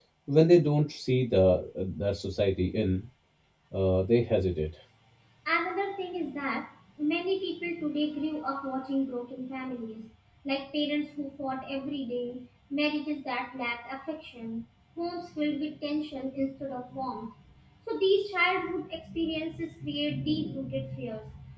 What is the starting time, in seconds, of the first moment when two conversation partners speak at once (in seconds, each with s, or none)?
none